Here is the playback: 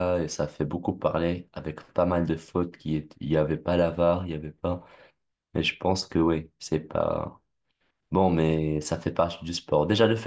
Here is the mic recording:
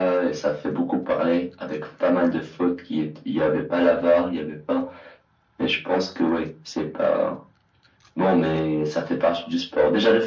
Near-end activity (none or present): none